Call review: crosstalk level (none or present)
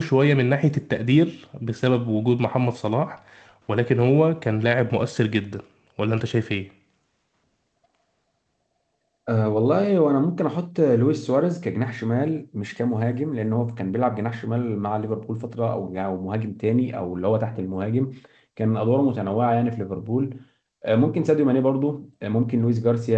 none